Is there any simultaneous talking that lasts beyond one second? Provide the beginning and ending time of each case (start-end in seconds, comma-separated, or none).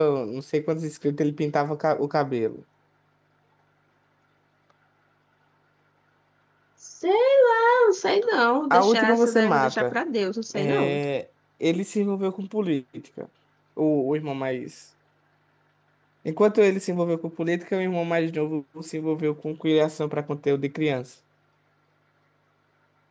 8.7-9.9